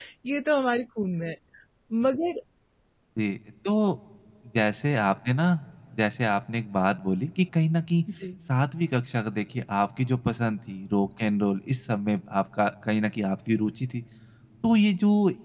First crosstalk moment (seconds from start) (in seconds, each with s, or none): none